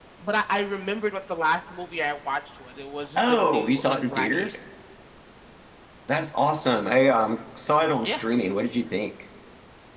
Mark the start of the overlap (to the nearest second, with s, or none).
3 s